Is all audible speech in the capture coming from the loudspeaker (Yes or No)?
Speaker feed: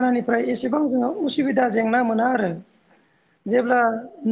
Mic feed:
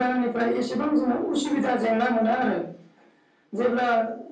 Yes